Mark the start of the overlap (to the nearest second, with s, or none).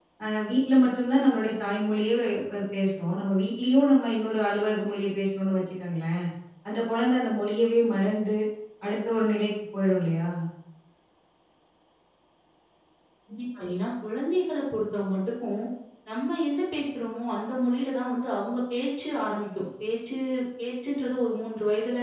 none